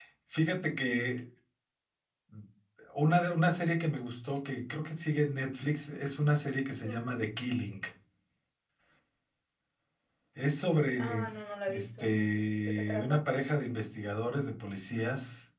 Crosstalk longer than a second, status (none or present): none